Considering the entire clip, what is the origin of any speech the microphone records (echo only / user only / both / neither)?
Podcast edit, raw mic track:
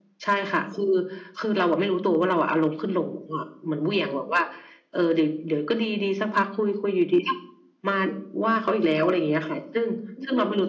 echo only